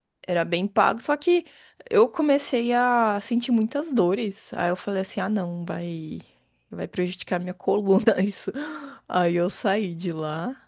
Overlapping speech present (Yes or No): No